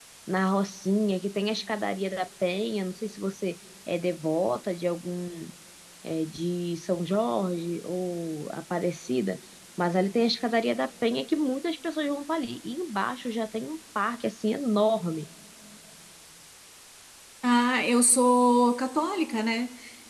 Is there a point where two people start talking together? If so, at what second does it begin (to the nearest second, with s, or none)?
none